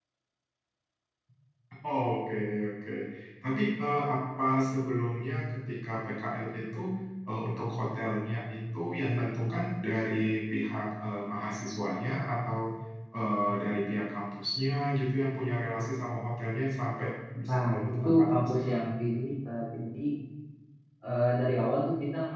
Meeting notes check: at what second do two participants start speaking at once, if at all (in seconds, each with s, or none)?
17.5 s